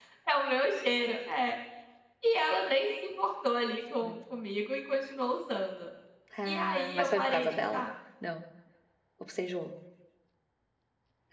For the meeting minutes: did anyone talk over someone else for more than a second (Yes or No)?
Yes